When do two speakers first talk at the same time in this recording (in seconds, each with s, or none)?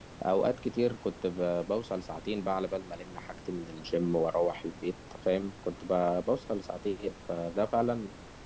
none